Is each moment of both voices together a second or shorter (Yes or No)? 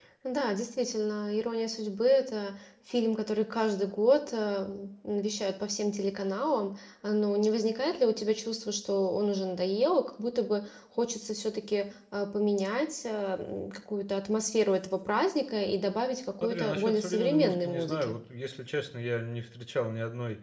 No